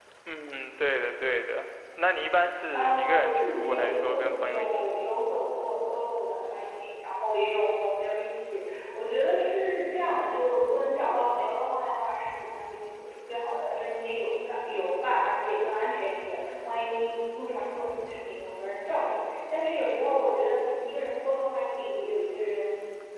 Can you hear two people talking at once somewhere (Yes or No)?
Yes